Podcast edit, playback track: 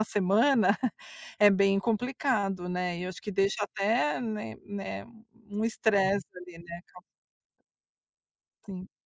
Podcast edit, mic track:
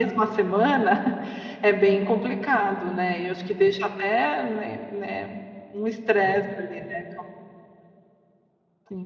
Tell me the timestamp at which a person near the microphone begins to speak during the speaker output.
none

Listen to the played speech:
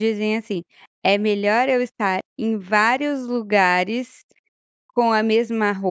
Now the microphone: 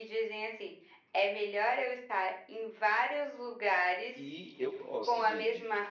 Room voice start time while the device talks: 4 s

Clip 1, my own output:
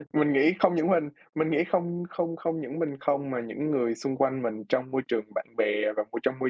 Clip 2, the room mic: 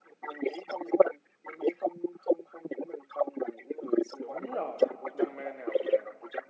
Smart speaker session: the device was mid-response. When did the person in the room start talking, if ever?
4 s

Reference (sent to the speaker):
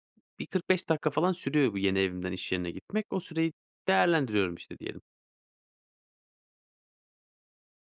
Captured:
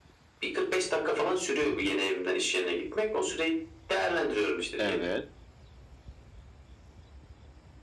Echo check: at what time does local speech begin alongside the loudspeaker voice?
5 s

